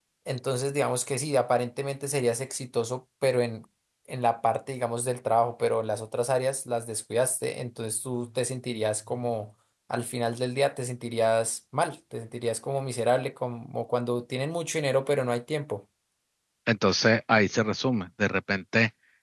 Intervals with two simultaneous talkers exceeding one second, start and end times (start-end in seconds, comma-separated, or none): none